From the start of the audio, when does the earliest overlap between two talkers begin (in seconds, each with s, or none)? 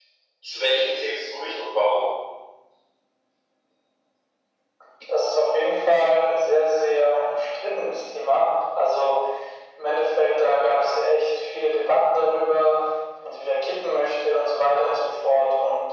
none